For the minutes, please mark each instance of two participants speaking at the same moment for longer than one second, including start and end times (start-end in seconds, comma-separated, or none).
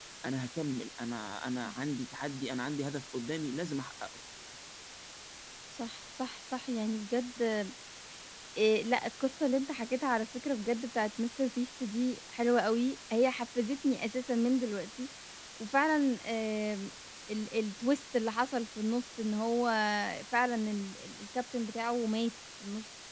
none